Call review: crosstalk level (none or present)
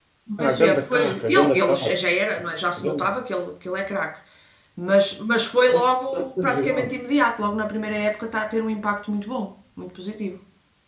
present